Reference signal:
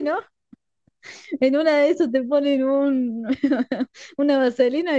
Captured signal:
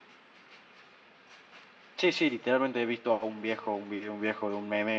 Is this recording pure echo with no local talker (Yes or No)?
No